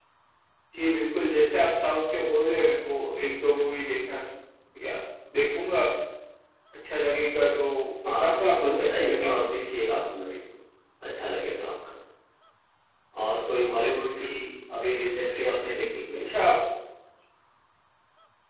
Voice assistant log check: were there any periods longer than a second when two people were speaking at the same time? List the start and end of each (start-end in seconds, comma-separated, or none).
8.1-9.6